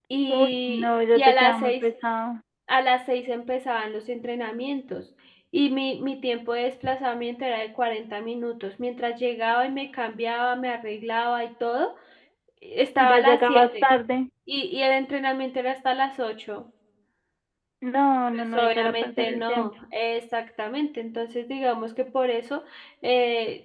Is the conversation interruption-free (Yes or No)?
No